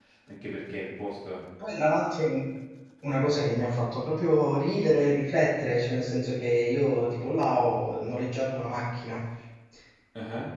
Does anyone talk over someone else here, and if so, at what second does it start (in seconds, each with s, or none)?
none